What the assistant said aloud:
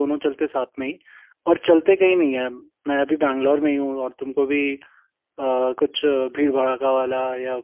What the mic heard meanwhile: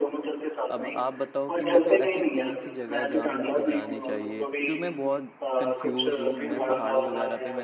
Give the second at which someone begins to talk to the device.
0.7 s

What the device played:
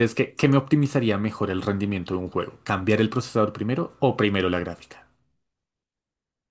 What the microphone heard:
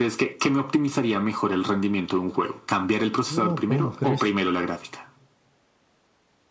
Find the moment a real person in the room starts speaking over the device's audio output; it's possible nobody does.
3.2 s

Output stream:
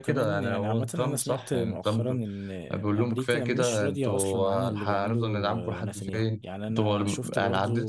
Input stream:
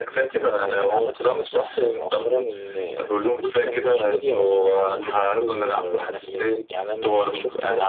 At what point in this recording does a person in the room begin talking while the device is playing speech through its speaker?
none

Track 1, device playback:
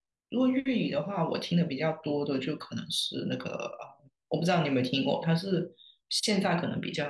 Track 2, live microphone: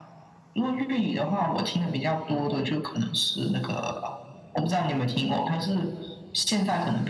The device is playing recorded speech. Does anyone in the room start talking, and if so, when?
none

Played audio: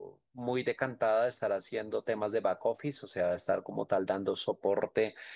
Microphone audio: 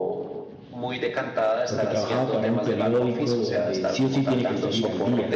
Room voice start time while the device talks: 1.6 s

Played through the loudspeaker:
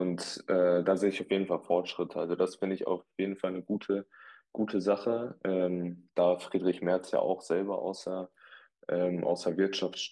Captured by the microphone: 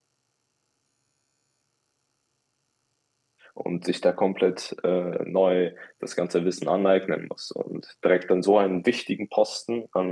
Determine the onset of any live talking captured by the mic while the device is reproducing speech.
3.5 s

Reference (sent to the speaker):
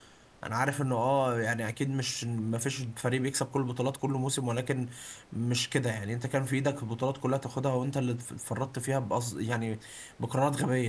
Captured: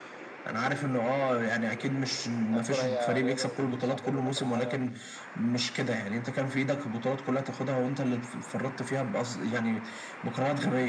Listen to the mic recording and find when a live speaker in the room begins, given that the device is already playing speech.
2.5 s

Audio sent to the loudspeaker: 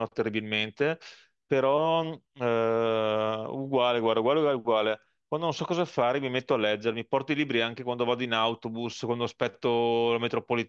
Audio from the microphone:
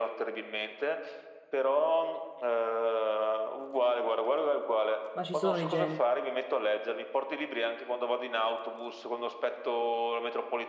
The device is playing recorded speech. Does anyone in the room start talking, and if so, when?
5.1 s

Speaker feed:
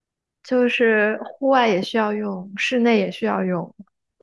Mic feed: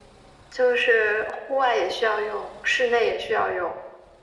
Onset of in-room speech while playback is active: none

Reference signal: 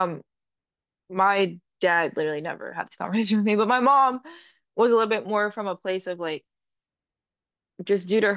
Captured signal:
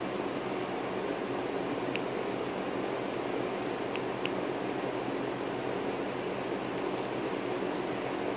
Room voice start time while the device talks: none

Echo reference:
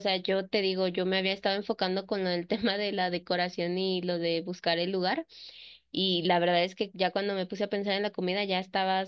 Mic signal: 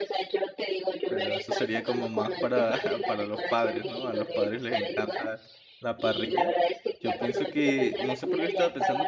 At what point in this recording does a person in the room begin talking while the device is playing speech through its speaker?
1.1 s

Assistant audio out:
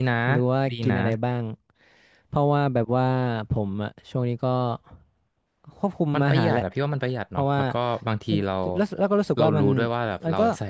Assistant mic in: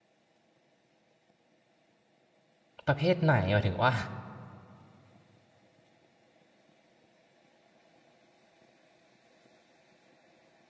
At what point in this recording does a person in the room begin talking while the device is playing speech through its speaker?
2.9 s

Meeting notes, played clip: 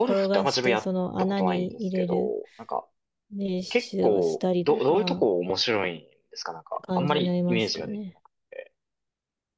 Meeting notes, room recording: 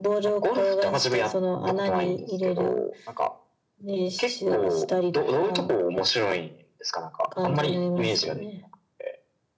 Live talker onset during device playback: none

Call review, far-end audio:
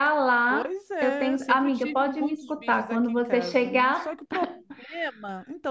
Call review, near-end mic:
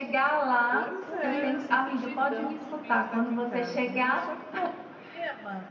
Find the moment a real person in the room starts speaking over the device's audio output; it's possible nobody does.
1.0 s

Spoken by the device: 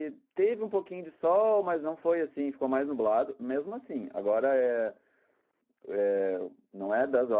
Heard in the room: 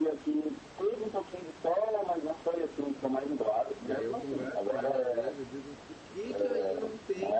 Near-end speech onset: 3.8 s

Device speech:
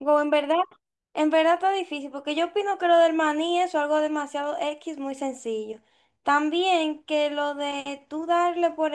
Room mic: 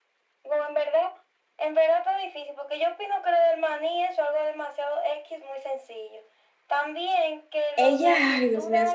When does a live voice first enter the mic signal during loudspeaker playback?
7.8 s

